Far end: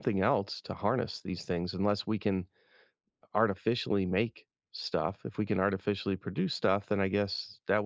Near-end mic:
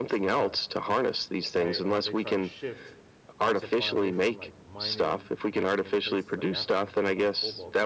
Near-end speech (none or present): present